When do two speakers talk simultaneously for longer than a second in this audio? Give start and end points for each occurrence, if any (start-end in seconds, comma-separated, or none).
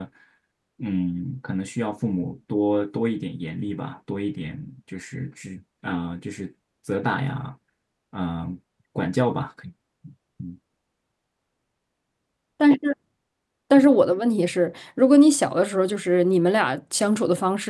none